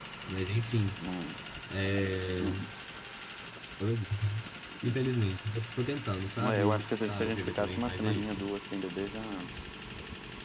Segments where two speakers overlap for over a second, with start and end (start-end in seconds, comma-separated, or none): 6.4-8.4